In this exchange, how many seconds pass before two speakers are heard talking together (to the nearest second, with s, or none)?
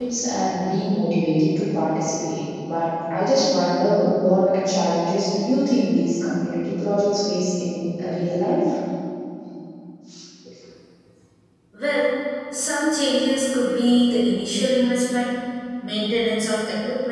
none